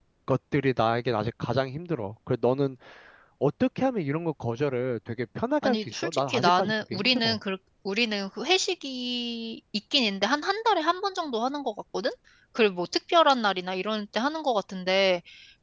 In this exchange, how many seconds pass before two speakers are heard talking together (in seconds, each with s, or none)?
5.6 s